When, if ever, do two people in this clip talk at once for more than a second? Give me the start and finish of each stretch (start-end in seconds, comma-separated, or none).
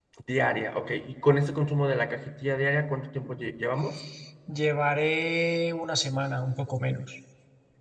none